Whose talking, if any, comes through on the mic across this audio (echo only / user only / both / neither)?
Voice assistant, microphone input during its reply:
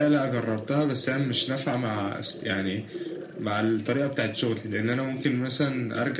echo only